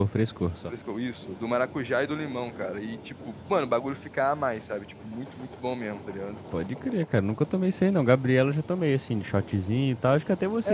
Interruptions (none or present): none